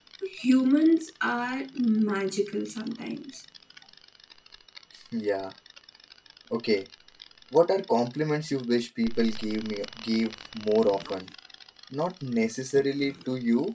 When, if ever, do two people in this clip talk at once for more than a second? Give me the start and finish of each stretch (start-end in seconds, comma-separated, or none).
none